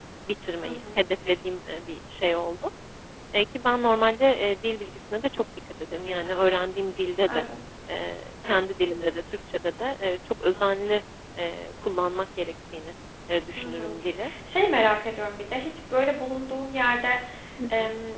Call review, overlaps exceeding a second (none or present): none